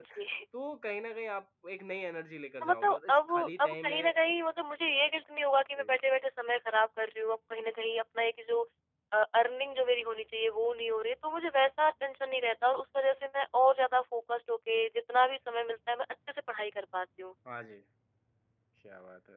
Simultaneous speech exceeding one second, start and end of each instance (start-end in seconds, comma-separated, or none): 2.6-4.1